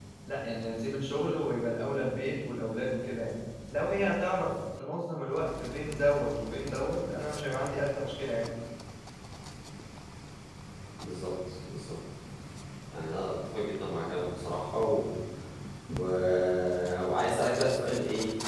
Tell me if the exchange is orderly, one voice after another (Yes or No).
Yes